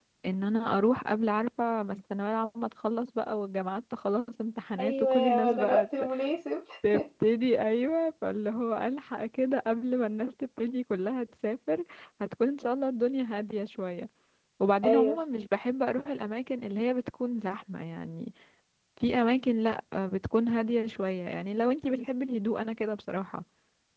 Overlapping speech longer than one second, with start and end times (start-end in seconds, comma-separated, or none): 4.8-6.1